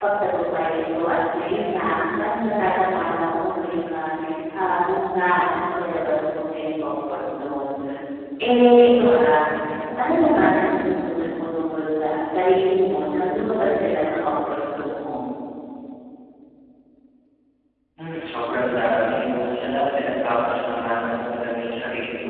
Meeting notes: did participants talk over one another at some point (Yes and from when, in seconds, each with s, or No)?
No